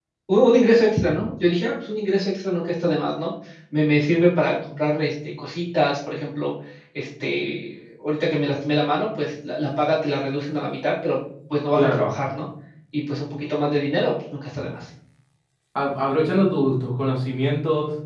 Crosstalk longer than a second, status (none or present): none